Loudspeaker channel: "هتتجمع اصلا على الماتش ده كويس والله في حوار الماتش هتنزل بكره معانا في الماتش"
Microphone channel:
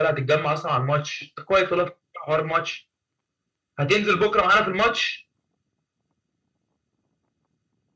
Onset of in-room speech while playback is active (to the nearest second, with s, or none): none